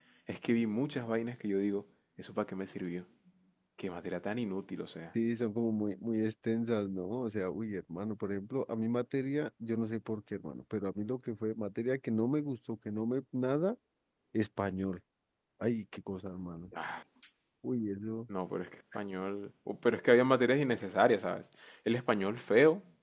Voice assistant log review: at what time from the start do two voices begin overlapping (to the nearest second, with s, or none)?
none